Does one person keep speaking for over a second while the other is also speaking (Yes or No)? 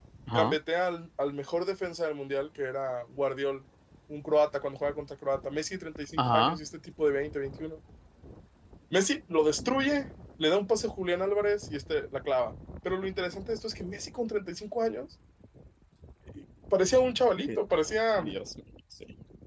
No